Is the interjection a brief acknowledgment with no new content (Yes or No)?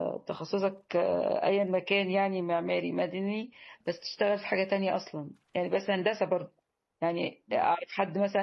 Yes